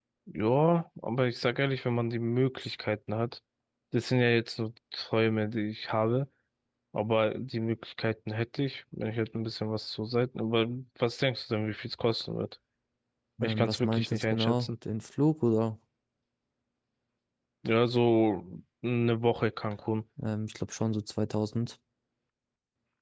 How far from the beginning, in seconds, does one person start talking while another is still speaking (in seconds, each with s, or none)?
13.4 s